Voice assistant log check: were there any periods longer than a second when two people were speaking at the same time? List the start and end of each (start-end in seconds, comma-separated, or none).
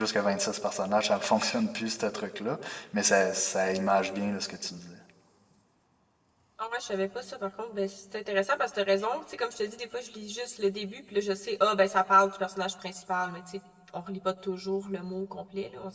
none